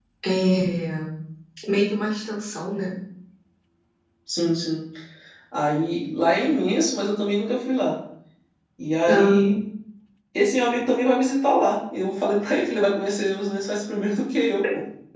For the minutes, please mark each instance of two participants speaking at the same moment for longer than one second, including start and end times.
none

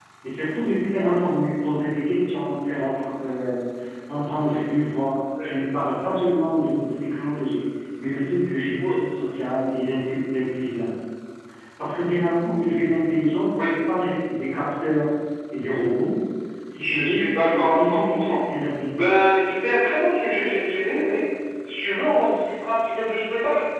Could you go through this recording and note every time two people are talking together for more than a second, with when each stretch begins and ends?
16.8-18.4

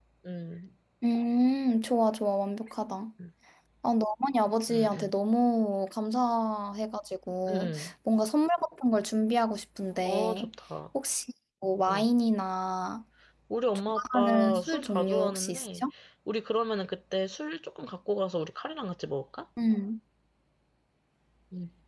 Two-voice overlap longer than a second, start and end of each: 13.9-15.8

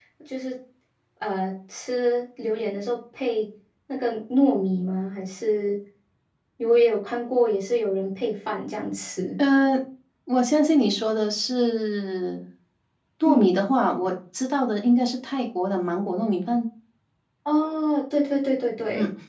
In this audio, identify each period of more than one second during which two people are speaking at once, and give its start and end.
none

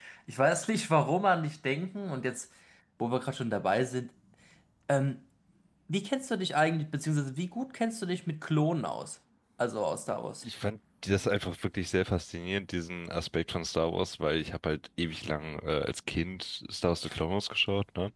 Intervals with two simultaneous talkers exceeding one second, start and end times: none

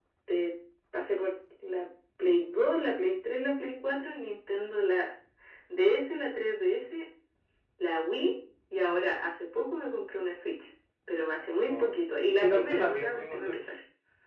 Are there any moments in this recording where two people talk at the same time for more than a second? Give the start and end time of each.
12.4-13.7

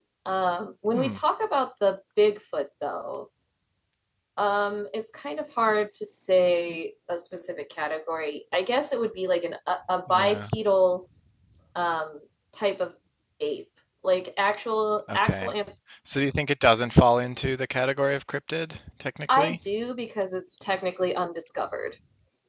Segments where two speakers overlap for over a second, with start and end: none

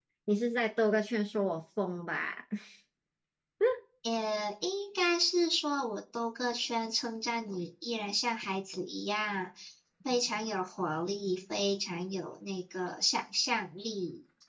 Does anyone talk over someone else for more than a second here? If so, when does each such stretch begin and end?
none

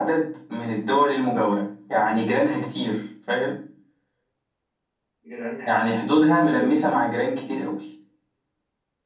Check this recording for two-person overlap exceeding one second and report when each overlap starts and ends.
5.6-6.8

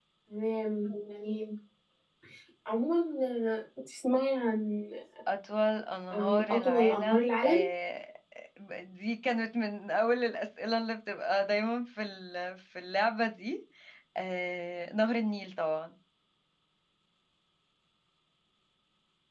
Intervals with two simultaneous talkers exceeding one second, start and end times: 6.1-7.6

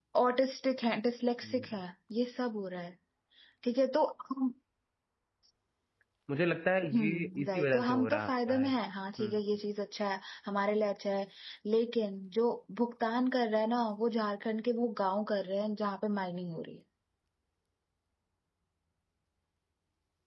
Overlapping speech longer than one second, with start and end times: 6.9-8.7

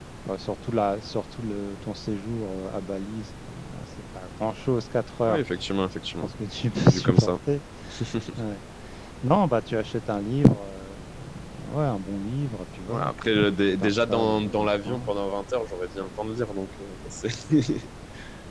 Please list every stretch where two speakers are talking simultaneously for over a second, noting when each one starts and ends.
13.8-15.1

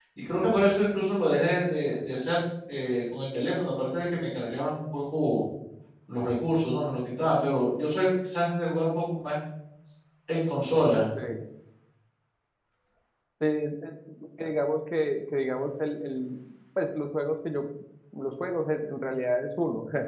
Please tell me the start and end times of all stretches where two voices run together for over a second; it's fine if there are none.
none

